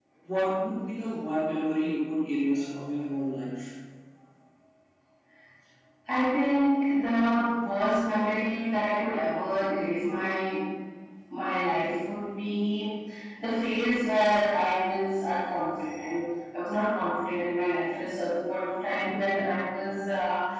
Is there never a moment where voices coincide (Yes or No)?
Yes